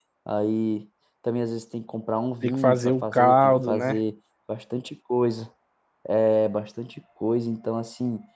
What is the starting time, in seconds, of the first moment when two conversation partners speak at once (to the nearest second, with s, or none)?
2 s